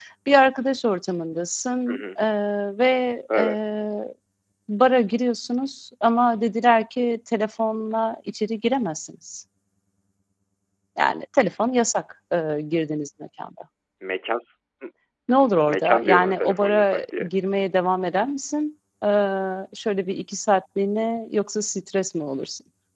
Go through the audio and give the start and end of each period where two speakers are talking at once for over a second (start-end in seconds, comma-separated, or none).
15.7-17.3